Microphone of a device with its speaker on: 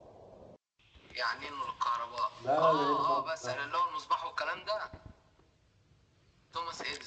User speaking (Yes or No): Yes